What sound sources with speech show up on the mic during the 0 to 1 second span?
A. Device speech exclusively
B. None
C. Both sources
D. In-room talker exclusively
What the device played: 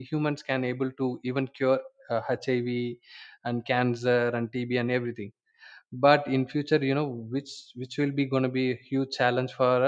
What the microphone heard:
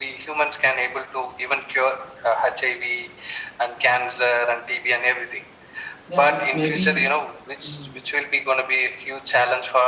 A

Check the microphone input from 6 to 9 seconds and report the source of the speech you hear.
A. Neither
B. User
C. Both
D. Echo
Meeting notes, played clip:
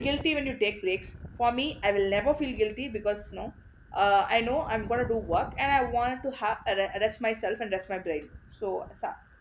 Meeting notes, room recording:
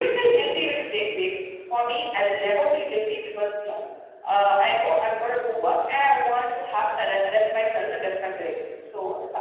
D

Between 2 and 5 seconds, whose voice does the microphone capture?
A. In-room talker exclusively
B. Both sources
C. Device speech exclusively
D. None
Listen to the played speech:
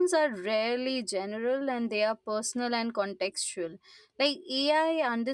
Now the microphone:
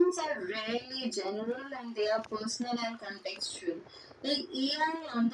C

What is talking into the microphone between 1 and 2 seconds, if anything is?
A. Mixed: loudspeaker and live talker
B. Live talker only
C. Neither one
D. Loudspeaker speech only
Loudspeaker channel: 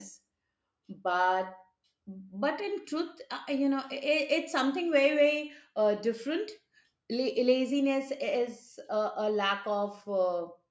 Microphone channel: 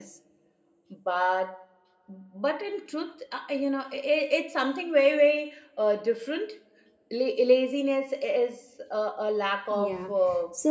D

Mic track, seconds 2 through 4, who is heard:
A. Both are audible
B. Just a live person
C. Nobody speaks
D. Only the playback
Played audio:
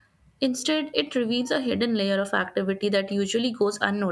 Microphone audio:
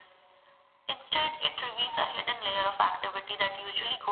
D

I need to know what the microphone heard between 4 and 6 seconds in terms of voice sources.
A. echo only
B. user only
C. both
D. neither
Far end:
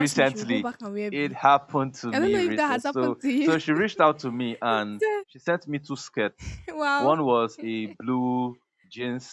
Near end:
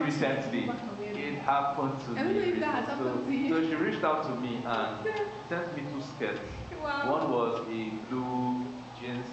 A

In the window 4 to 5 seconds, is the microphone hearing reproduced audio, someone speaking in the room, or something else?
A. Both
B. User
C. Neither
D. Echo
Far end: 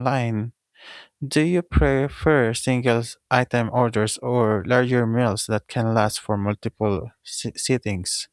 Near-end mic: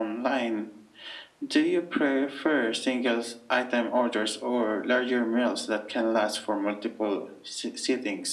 D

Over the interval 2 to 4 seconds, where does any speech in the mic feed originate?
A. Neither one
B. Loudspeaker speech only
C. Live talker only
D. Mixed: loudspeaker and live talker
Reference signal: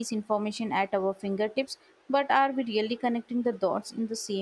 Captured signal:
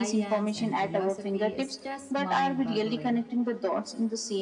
D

